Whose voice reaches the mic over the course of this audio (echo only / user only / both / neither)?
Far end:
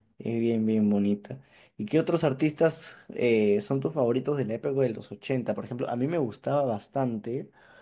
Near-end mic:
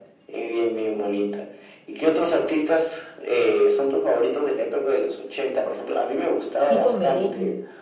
both